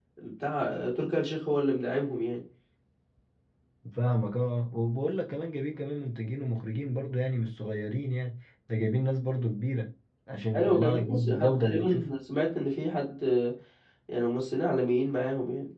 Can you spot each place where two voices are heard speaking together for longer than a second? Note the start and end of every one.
10.5-12.1

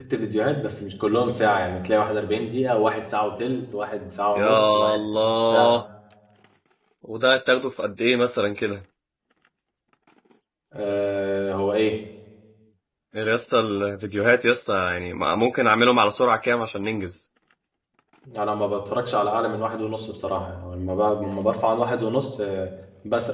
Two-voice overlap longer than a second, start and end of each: 4.3-5.8

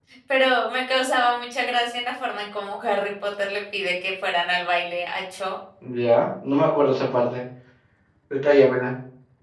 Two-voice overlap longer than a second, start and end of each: none

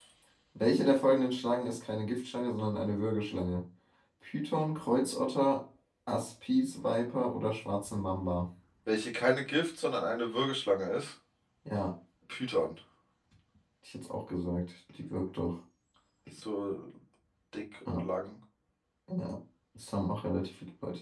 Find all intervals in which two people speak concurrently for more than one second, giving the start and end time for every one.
none

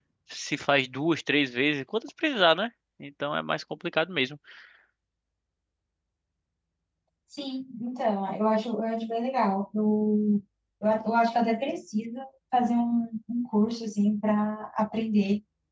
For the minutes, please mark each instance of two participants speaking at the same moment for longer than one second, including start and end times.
none

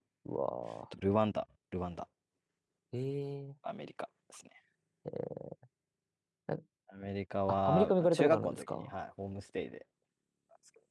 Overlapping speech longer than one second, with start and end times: 7.5-8.9

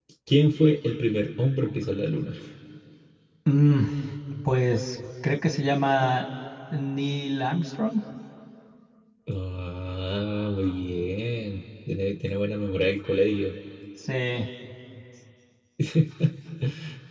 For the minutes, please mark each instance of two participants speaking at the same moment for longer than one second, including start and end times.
none

